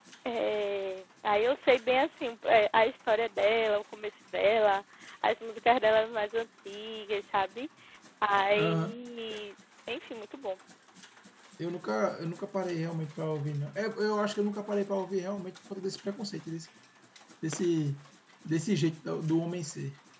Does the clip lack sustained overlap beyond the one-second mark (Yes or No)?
Yes